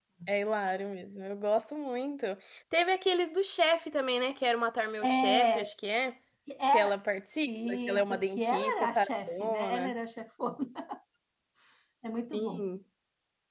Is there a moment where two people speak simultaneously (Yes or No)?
Yes